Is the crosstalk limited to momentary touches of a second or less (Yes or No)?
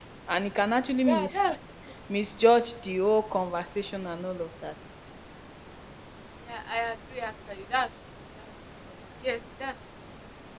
Yes